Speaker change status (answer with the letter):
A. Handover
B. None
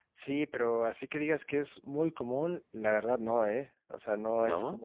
B